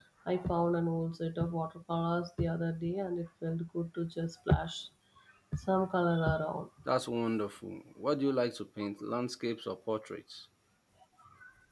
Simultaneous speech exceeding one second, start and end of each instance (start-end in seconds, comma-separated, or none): none